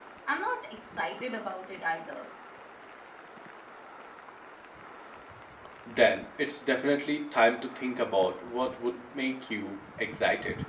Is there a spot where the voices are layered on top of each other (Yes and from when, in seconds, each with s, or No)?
No